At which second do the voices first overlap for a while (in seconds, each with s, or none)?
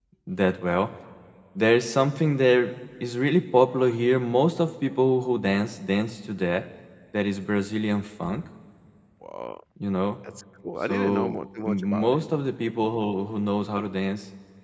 10.9 s